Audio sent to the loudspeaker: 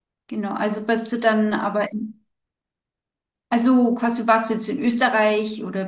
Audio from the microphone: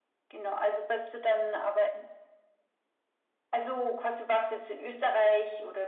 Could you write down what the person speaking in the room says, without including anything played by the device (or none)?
none